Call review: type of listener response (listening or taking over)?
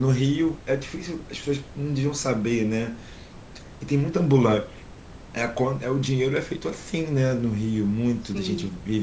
listening